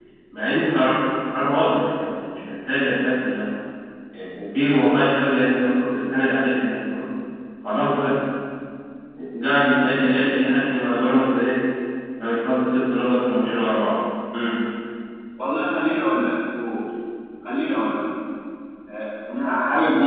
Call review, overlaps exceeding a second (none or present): none